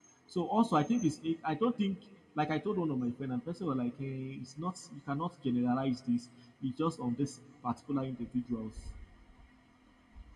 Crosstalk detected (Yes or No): No